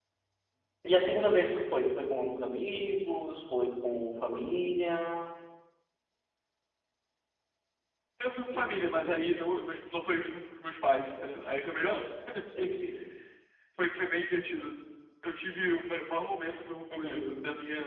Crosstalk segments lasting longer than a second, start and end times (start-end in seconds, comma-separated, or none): none